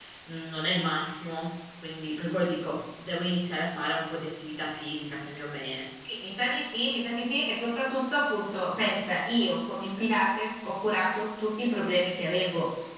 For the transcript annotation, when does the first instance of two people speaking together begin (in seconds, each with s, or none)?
none